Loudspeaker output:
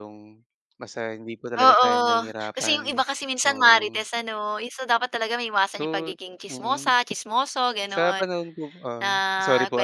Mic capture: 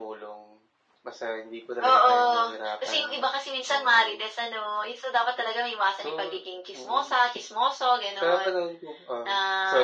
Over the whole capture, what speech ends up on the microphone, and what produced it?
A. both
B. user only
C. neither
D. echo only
D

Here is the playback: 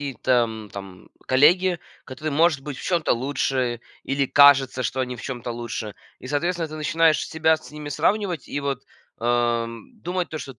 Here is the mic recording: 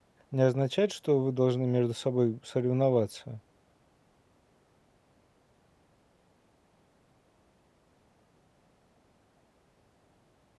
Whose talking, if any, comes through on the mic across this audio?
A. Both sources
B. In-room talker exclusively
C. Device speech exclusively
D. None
B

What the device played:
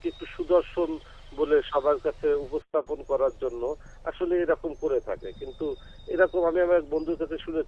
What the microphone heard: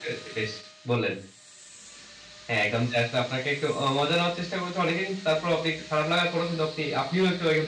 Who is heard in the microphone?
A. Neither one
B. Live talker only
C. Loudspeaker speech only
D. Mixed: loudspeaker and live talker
B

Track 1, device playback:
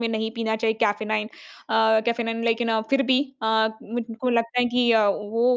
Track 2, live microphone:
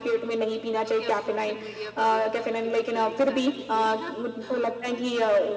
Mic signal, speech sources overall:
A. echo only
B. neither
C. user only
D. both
D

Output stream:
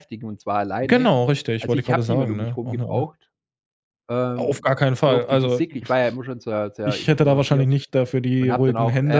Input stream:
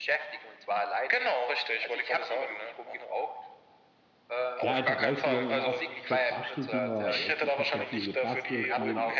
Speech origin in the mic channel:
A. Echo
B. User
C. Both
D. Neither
C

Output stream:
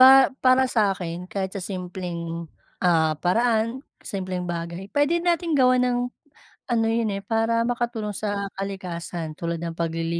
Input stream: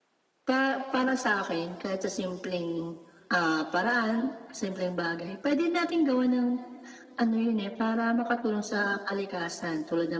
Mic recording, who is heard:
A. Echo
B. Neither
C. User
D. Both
A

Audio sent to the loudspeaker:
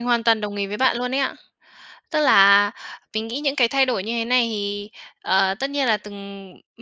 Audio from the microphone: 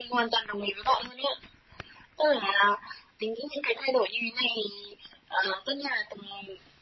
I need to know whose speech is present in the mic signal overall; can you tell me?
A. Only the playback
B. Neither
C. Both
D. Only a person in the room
A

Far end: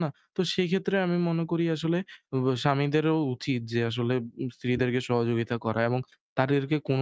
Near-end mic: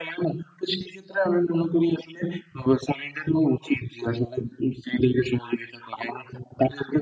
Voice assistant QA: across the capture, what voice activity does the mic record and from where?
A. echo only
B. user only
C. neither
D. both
A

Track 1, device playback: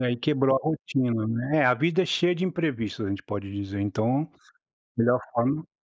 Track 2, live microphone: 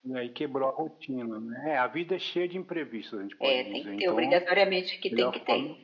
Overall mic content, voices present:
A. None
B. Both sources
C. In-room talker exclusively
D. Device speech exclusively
B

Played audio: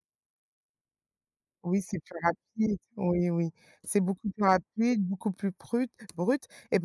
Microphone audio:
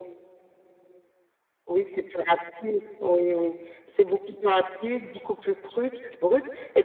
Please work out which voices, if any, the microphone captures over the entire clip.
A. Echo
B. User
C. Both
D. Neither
A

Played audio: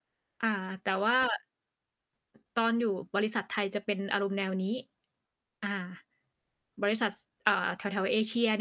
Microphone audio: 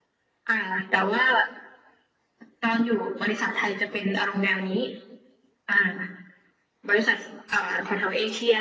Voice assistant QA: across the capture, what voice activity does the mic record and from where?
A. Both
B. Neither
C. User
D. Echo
D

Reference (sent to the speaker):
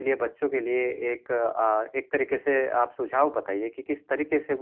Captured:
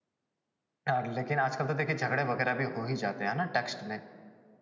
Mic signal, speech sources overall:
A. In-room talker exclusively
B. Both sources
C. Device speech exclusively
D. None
A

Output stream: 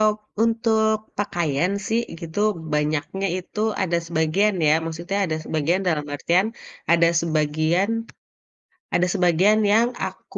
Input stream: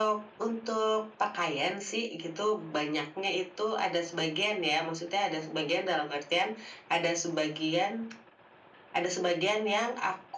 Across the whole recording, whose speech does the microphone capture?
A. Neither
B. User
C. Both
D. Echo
D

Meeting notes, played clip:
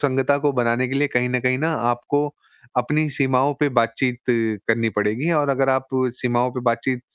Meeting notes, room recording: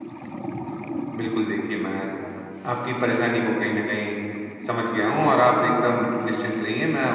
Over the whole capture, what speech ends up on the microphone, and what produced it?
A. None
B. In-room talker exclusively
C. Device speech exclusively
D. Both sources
B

